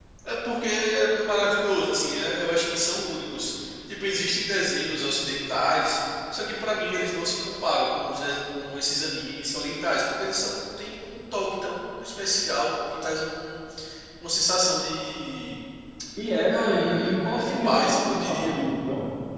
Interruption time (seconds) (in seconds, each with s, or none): 16.5 s